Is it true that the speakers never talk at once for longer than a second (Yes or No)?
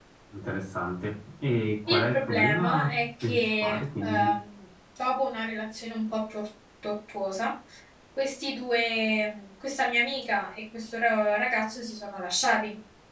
No